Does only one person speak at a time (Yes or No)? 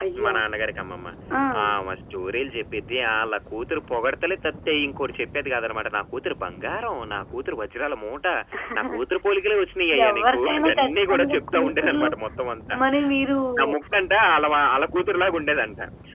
No